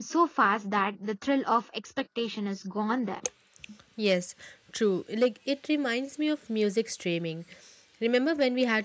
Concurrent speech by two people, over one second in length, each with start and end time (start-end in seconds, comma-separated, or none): none